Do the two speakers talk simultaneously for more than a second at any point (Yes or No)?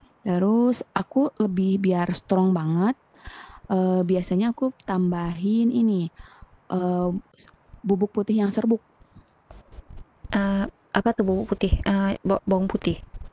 No